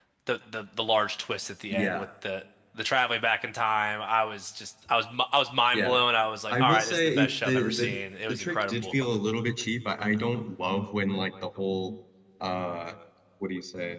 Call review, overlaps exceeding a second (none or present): present